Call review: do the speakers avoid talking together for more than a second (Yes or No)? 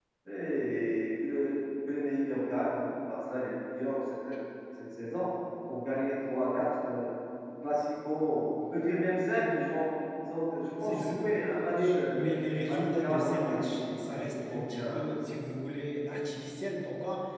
No